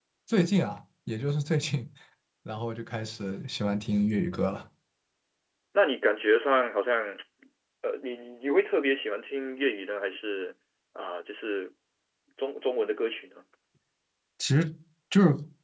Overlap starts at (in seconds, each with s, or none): none